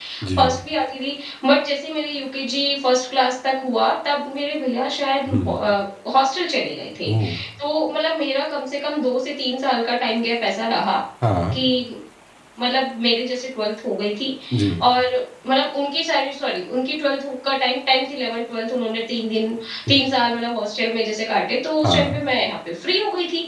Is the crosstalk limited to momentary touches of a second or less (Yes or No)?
Yes